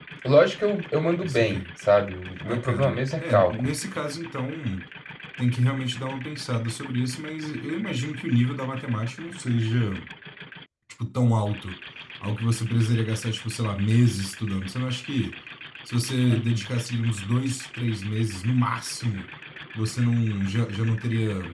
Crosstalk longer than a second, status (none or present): present